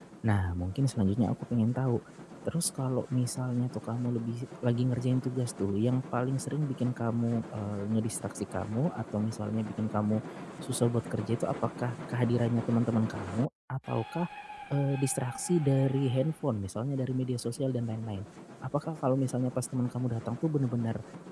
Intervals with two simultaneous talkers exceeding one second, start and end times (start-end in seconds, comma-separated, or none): none